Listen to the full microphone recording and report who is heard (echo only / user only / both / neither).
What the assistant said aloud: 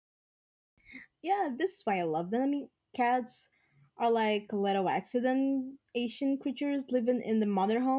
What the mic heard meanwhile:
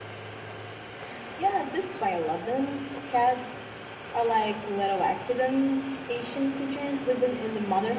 echo only